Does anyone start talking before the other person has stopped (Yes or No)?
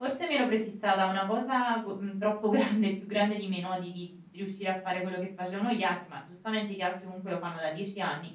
No